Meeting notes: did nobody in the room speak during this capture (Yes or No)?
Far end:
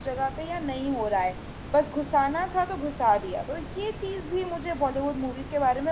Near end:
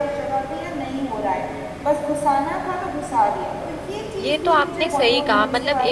No